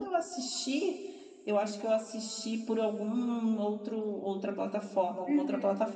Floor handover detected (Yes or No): Yes